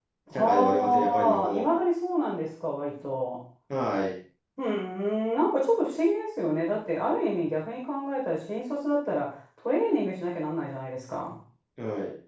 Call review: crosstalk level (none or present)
present